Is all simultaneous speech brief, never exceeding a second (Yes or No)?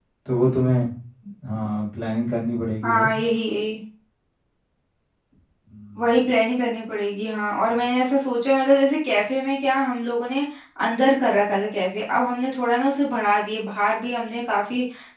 Yes